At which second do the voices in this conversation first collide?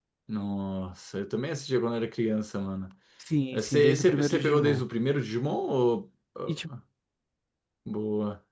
3.5 s

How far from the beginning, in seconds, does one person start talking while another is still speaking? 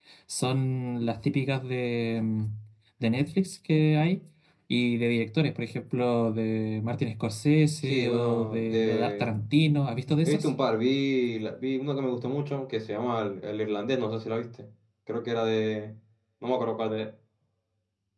7.8 s

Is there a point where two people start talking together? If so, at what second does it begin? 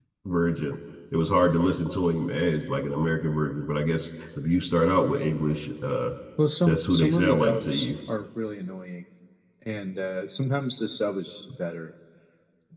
6.6 s

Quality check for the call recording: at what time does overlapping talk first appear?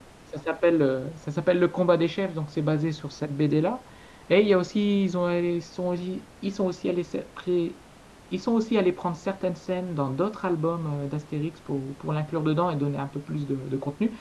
none

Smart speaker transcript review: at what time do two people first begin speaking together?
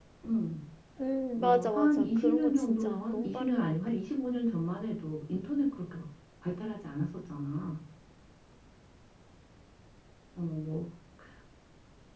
1.4 s

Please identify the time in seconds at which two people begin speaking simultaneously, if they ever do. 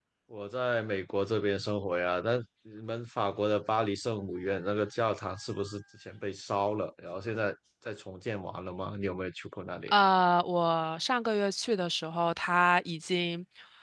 none

